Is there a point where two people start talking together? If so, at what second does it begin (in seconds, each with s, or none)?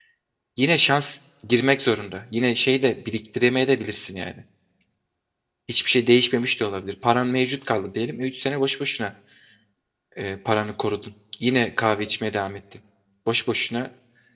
none